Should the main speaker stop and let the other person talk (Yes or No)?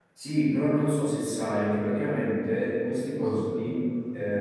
No